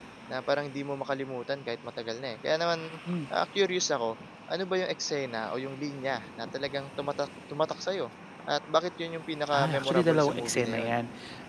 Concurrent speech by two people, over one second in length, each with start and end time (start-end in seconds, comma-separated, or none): 9.5-10.9